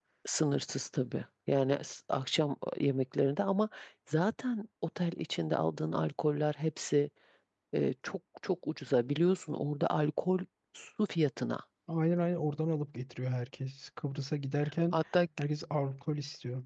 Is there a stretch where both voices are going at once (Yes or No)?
No